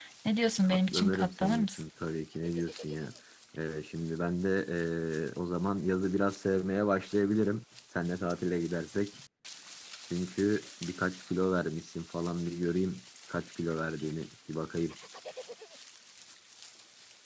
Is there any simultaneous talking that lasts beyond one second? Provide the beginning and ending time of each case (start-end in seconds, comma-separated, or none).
0.6-1.9